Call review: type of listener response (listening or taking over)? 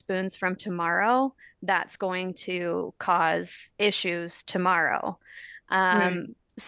listening